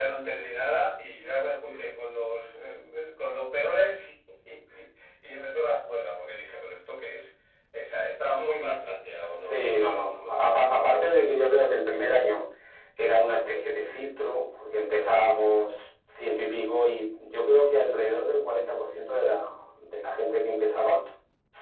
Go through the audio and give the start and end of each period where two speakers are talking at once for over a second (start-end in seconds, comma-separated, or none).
9.4-10.7